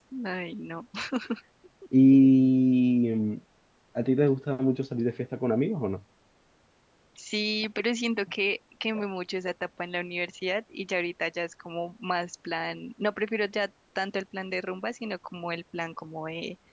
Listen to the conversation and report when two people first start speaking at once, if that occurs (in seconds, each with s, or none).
none